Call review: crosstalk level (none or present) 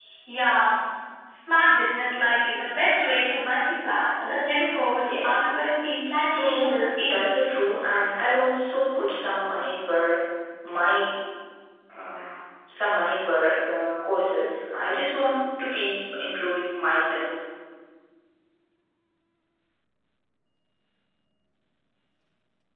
present